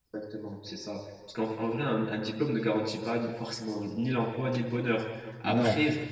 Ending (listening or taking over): listening